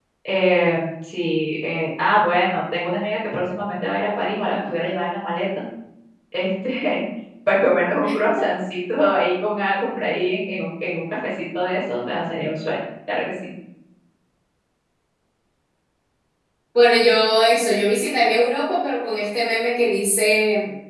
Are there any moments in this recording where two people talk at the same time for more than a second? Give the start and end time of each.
none

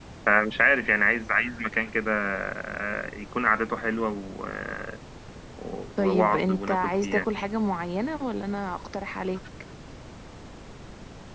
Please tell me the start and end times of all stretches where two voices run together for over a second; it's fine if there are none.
6.0-7.2

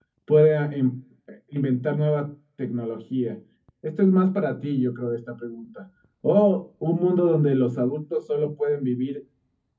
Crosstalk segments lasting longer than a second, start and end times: none

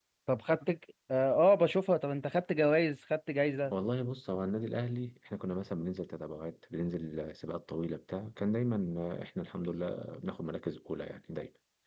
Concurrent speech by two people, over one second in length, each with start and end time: none

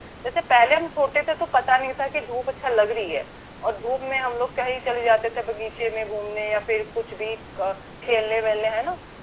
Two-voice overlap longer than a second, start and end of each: none

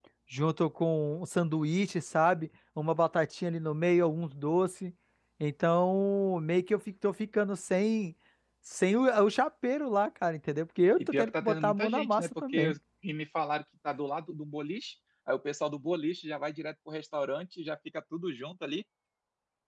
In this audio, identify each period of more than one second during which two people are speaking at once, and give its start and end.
11.0-12.7

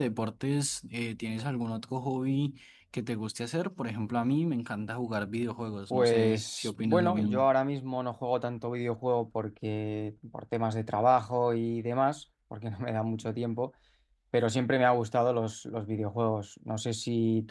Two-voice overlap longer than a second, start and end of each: 5.9-7.5

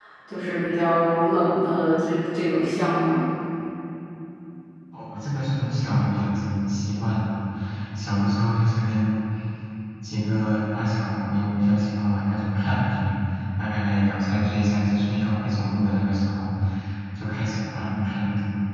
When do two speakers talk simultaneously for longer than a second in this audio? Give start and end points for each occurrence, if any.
none

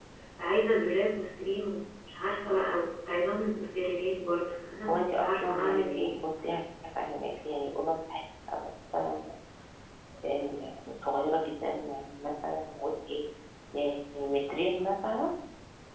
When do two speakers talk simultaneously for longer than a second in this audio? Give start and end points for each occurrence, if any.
4.9-6.2

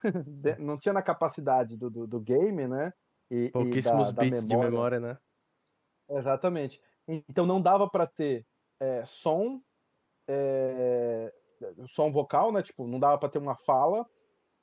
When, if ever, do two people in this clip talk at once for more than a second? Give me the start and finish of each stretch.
3.6-4.8

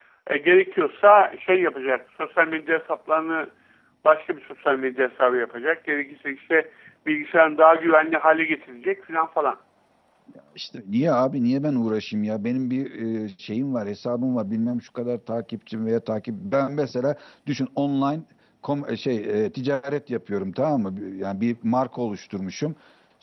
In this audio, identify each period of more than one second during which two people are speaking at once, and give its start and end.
none

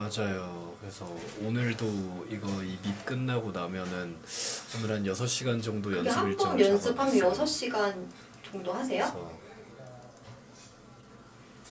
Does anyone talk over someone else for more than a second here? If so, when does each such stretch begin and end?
5.9-7.4

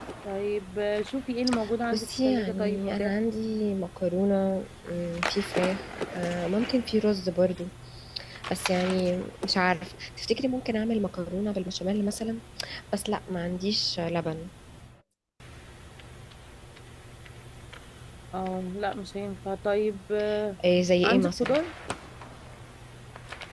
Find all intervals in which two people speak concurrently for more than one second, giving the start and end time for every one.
1.9-3.2

